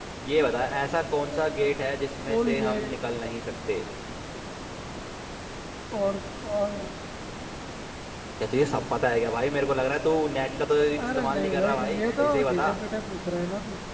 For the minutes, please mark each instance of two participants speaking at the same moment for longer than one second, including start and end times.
11.1-12.7

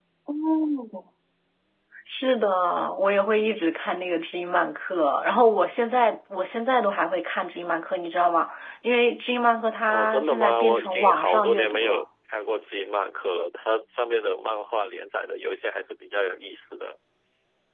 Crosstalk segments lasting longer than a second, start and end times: 9.9-12.0

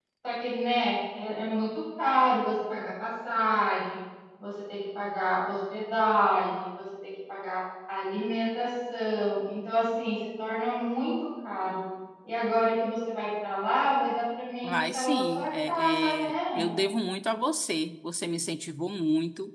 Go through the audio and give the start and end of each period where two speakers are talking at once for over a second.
14.6-16.7

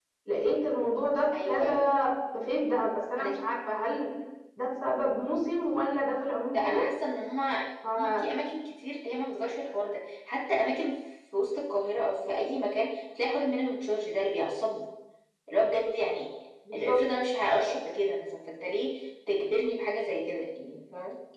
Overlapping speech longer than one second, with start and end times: none

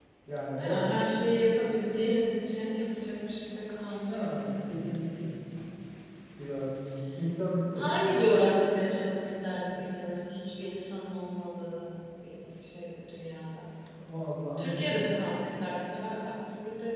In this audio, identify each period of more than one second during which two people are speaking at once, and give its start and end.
none

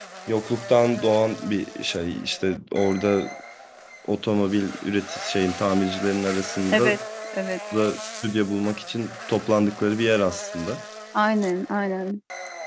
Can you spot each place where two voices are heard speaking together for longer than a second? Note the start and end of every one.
none

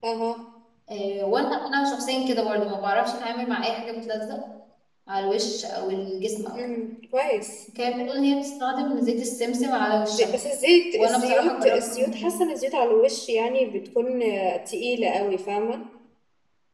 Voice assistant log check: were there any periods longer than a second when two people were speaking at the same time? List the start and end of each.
10.9-12.3

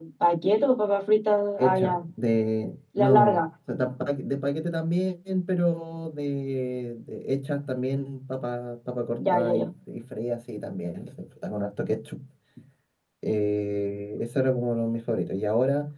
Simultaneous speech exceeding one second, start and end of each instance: none

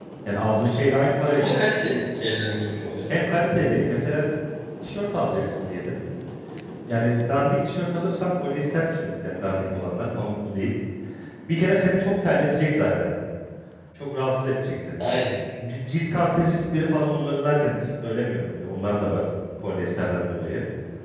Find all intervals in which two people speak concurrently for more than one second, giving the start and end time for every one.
none

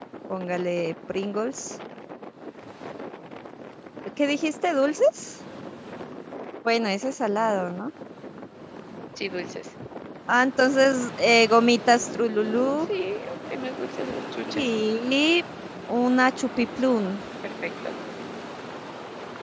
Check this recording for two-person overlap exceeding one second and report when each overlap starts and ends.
none

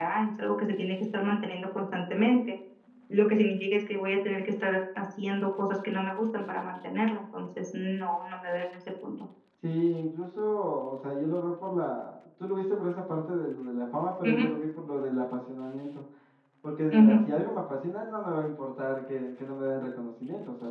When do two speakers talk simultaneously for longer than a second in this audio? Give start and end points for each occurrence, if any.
none

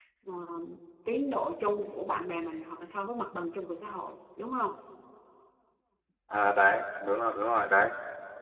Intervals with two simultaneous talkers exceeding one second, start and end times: none

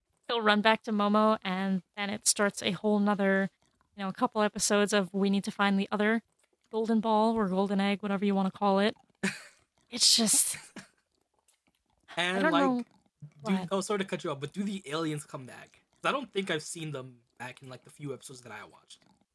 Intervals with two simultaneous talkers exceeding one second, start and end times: none

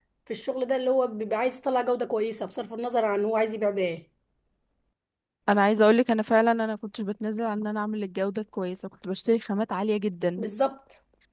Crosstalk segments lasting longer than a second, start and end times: none

